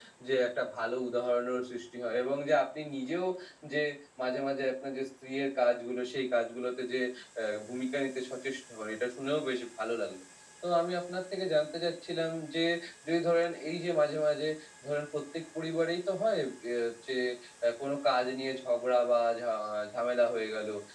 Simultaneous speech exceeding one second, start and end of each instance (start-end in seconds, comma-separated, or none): none